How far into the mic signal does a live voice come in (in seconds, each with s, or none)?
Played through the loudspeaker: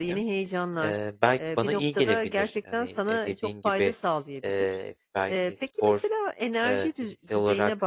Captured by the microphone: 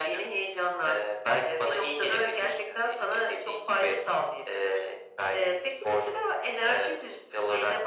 none